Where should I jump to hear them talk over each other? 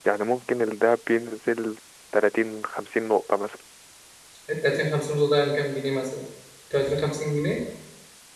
none

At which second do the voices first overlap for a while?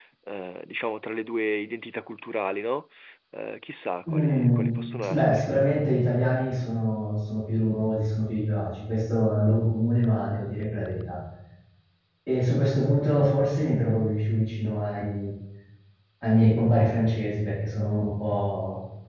4.1 s

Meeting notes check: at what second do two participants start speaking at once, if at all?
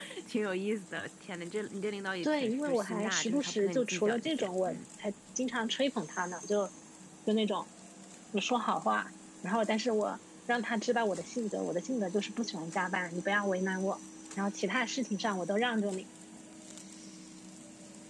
2.2 s

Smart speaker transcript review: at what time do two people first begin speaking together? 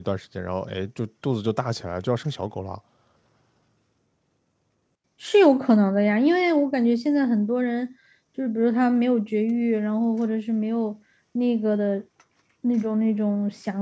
none

